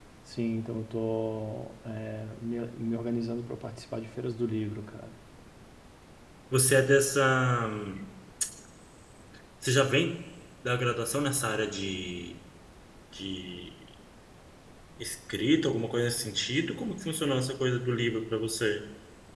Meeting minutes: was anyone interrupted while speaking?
No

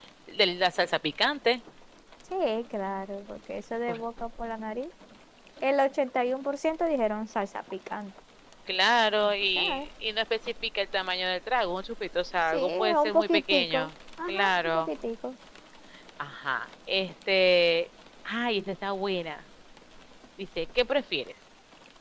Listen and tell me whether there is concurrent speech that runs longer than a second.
Yes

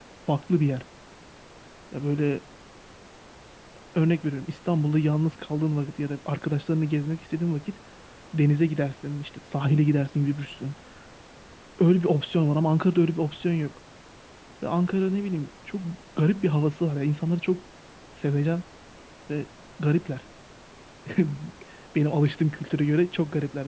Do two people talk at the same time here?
No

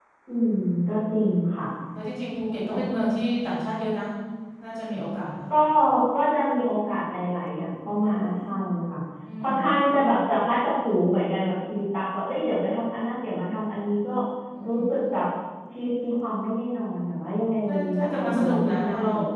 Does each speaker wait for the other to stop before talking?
No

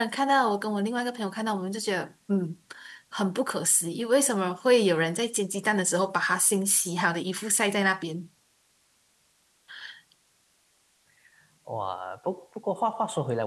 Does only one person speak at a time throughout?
Yes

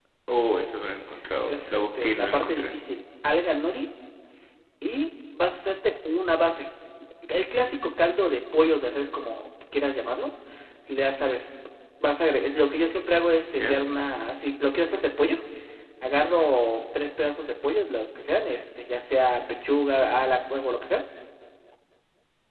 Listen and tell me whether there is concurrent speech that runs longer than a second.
Yes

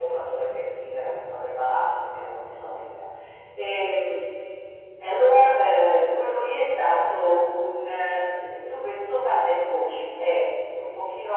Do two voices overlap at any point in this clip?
No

